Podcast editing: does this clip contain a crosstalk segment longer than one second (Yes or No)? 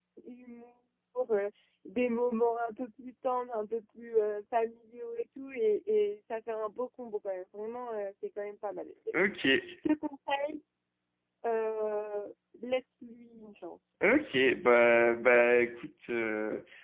No